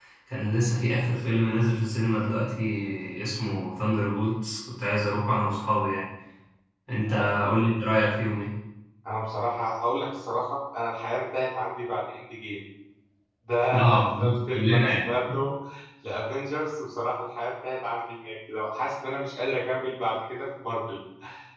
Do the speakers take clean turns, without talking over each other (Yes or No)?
No